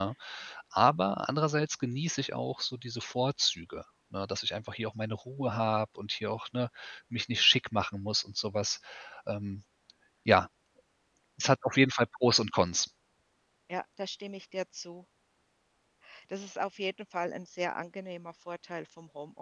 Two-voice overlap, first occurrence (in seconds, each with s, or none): none